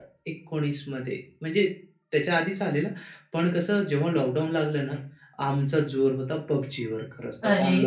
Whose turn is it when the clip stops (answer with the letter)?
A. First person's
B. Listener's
B